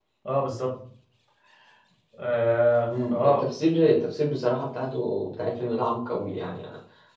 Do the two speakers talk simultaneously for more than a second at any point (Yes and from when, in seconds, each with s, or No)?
No